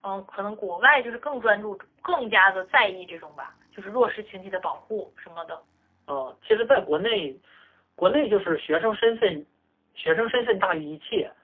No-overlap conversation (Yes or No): Yes